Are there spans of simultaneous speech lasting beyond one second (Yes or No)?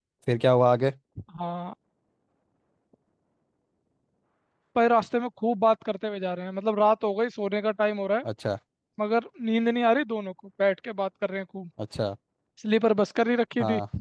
No